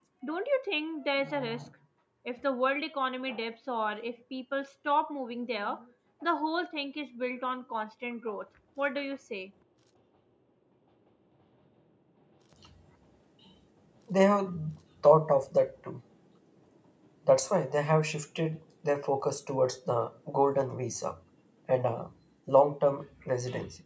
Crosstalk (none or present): none